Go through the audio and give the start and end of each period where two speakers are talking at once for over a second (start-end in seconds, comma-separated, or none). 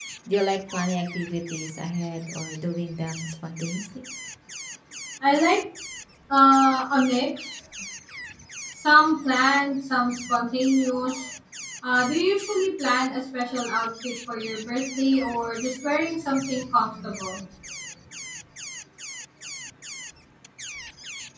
none